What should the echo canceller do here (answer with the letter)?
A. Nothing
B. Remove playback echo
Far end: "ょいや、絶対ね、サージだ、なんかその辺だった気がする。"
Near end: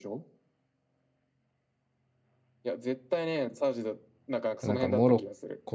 B